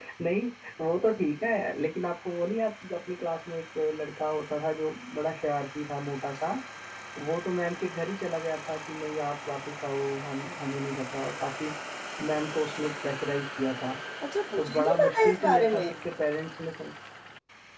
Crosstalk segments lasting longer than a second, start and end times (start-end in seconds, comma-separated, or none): 14.6-15.9